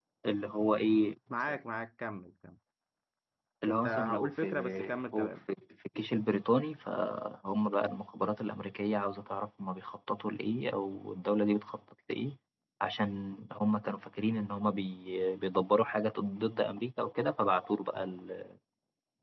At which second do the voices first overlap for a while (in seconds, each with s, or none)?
3.7 s